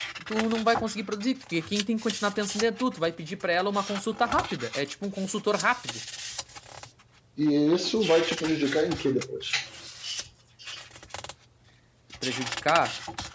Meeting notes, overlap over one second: none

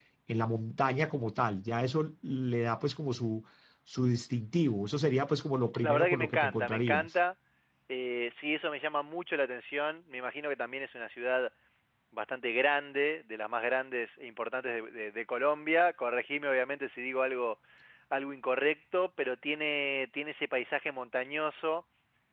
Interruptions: present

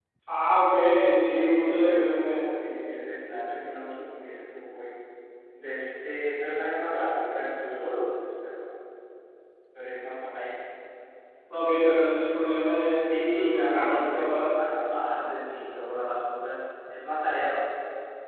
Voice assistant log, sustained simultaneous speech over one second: present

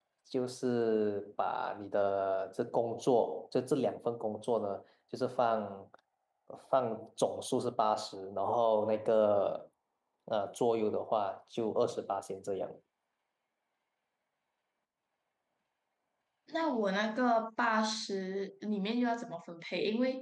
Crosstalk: none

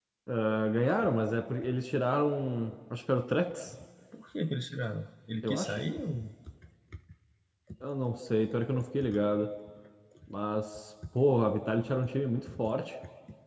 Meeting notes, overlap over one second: none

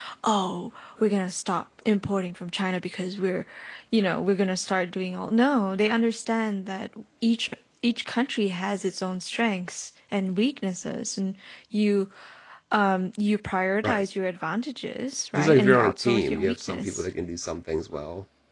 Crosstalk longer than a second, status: present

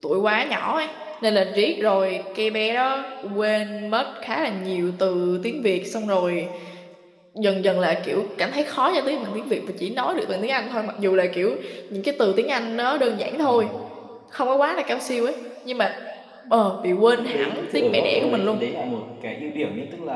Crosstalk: present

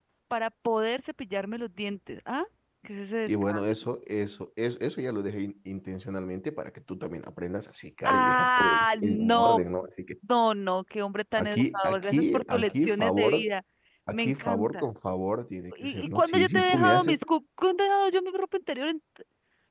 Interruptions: present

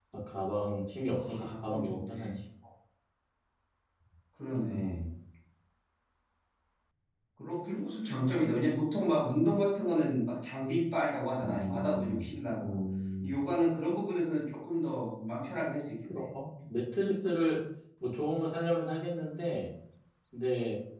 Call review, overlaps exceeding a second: present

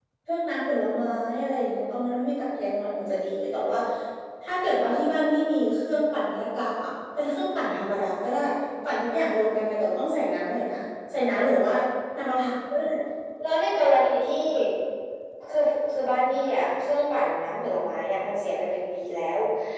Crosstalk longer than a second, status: none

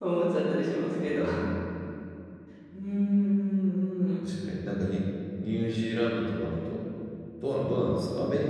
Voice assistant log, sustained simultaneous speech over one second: none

